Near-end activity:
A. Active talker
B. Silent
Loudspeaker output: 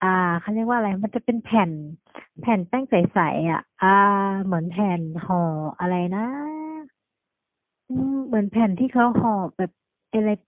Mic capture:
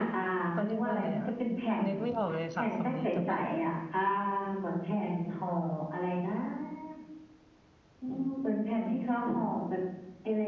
A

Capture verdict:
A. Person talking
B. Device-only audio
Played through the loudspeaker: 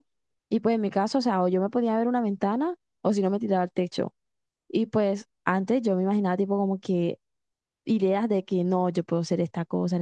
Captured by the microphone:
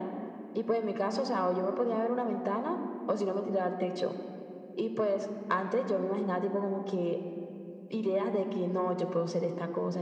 B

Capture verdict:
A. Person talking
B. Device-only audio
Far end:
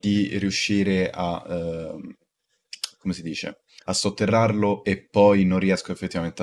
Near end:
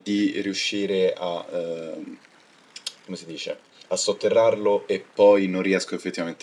B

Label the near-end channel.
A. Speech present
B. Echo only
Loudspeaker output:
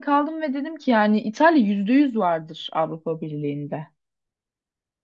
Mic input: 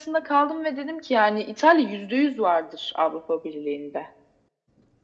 B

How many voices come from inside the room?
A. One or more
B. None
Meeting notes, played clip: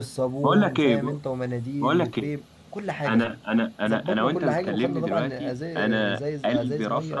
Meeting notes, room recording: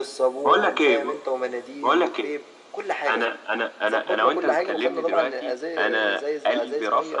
B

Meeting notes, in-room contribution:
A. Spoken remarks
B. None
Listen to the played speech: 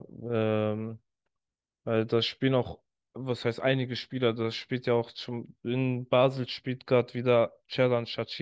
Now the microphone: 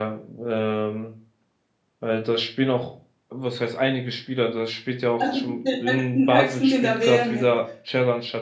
A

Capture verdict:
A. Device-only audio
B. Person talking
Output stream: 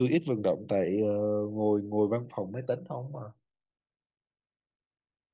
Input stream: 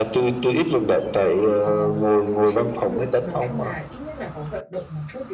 B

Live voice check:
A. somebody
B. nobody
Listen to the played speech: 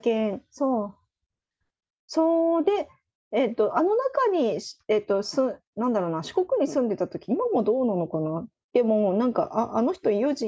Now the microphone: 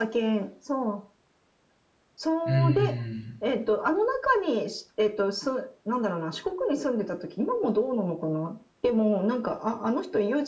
A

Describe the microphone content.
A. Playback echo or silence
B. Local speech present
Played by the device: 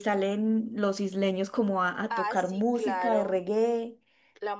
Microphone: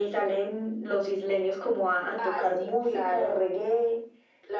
A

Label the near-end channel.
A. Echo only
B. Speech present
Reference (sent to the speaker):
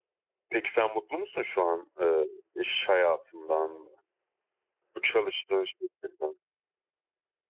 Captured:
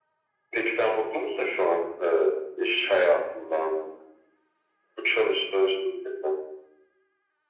A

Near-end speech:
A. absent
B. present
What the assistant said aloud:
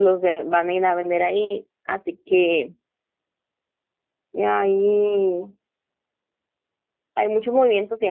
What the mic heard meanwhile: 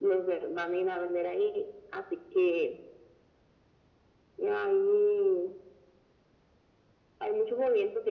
A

